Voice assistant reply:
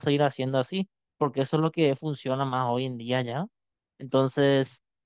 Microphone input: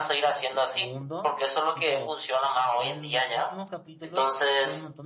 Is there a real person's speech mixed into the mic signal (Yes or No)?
Yes